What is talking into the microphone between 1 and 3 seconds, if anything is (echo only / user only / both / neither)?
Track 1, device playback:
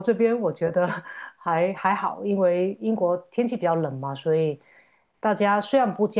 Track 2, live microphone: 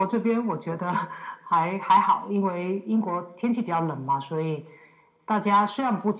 echo only